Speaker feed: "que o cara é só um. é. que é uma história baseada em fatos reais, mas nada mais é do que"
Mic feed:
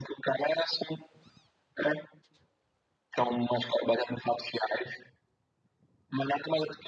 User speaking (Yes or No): No